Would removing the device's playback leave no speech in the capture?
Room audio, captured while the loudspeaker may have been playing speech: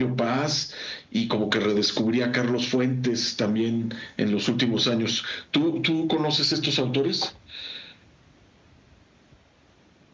Yes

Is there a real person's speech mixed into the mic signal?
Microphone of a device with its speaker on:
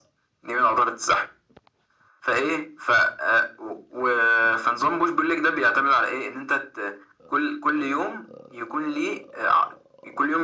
No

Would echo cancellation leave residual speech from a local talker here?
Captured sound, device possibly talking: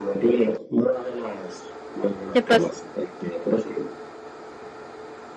Yes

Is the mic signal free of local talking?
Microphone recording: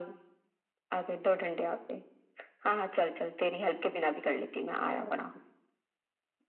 Yes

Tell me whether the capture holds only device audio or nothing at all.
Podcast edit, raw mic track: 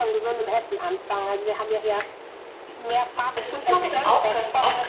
No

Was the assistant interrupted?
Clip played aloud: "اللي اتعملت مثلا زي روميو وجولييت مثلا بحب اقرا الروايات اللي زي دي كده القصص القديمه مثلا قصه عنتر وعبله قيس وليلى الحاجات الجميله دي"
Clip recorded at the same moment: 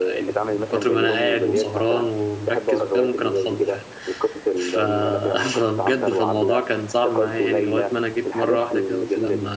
Yes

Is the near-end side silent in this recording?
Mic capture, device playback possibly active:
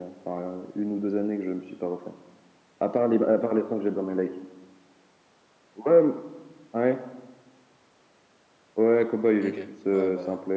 No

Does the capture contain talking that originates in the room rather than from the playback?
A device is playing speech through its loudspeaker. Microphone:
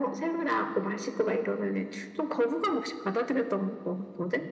No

